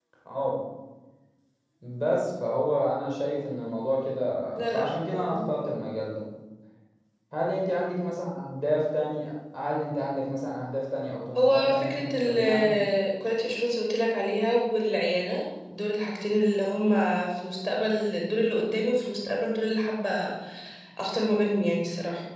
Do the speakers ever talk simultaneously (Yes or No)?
Yes